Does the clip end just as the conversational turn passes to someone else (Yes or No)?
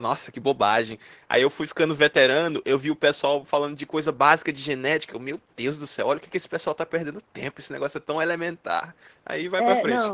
Yes